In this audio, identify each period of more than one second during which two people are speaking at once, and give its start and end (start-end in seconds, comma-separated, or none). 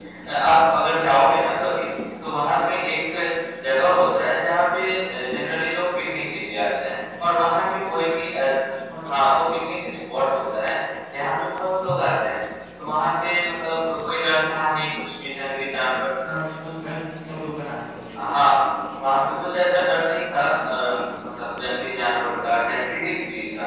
none